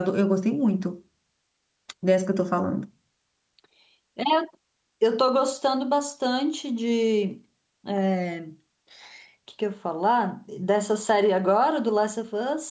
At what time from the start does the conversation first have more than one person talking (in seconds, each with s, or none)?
none